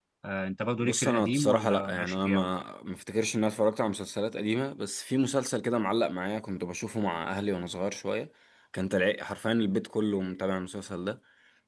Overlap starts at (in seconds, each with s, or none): 0.8 s